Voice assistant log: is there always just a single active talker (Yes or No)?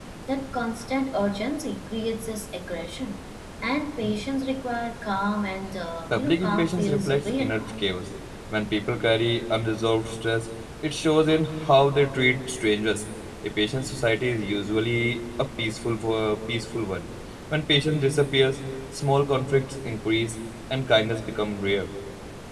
No